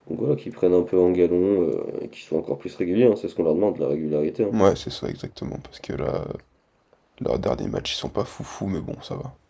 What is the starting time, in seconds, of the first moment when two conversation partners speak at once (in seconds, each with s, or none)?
none